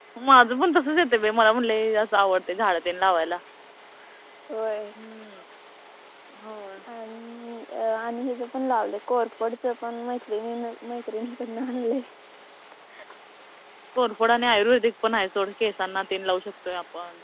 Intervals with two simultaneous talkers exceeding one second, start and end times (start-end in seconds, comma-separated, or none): none